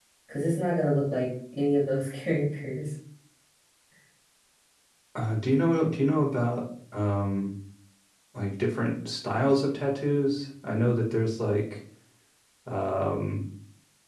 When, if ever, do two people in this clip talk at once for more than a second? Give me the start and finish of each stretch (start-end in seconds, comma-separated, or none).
none